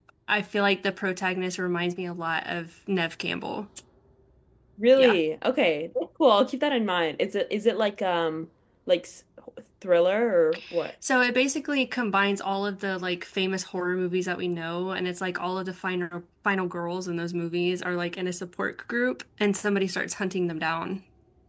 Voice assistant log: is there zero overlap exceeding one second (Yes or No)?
Yes